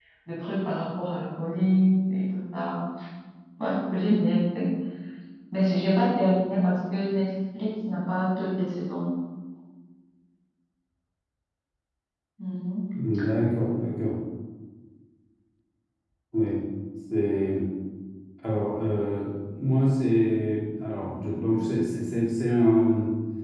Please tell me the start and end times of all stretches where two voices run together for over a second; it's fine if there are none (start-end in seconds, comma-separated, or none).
none